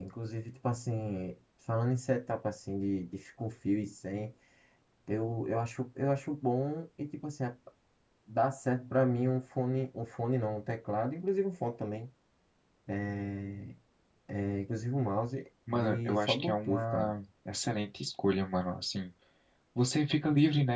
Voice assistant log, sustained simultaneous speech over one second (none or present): present